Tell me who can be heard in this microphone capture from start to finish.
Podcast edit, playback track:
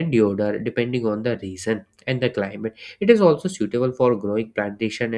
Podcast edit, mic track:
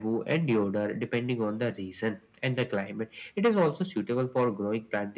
echo only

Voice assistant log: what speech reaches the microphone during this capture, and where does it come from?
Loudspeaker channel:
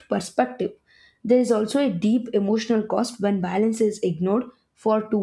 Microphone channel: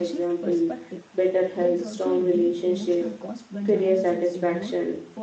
both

